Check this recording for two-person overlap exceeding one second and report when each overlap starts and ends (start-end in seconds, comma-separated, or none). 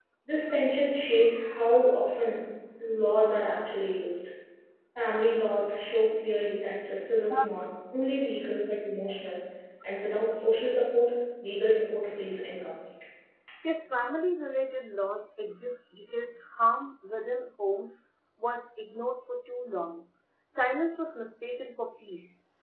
none